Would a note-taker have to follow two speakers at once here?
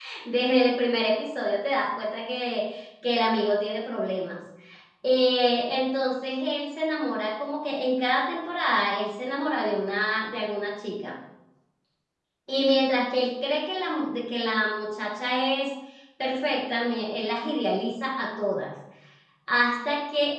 No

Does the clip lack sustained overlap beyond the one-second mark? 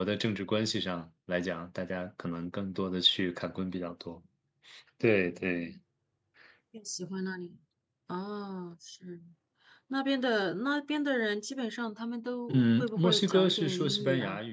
No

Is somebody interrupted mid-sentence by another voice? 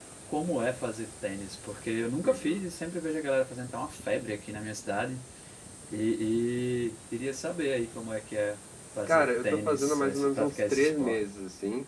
Yes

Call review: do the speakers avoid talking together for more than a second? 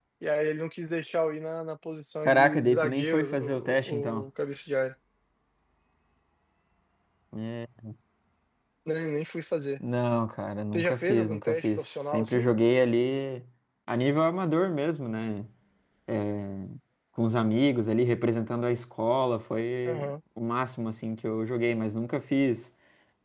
No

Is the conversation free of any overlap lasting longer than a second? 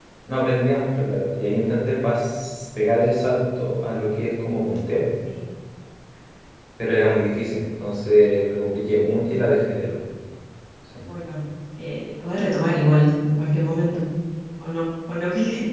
Yes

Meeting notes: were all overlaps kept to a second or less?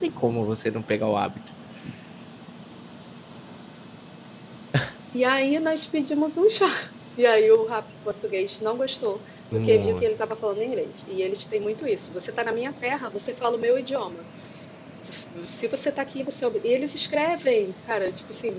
Yes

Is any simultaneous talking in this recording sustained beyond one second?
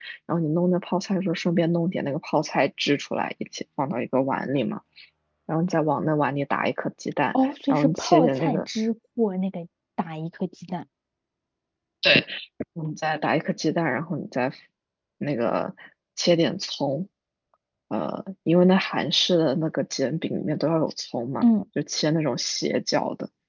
Yes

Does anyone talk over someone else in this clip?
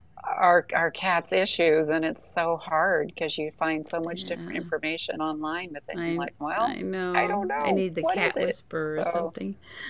Yes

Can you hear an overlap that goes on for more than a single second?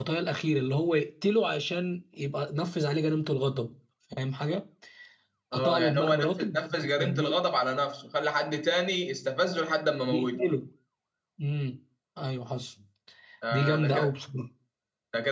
Yes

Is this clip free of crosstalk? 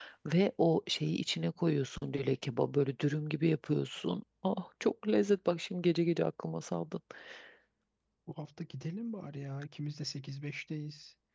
Yes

